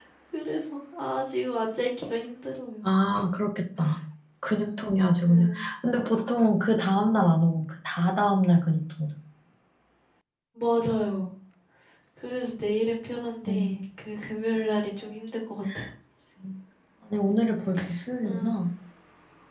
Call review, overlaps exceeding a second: none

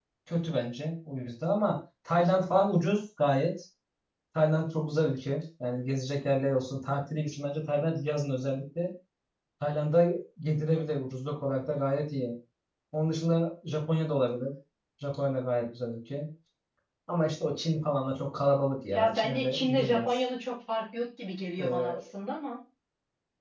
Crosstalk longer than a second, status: present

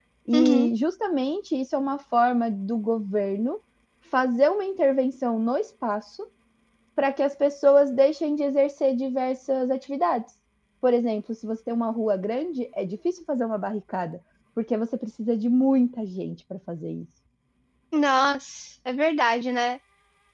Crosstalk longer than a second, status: none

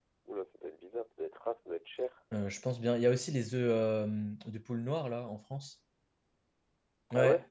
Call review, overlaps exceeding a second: none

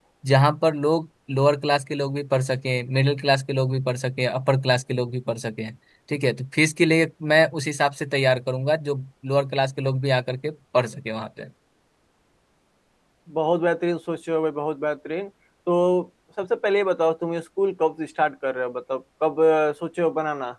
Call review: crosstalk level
none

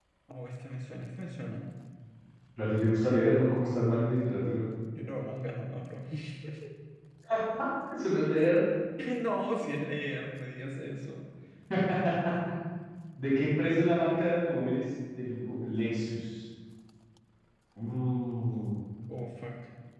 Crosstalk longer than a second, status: none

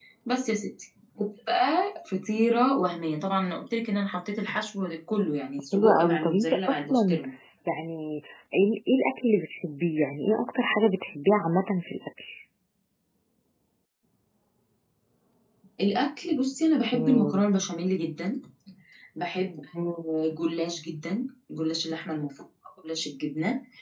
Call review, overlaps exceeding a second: present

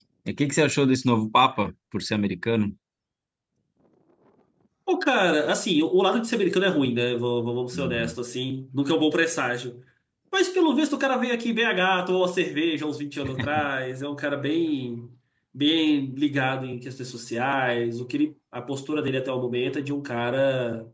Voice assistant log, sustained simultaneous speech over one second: none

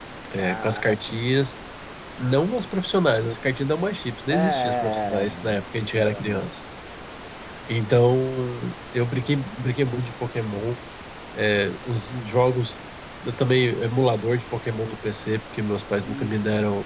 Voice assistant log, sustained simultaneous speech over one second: present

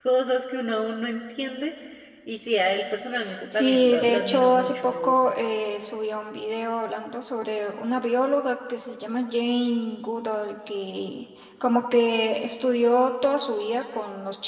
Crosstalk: present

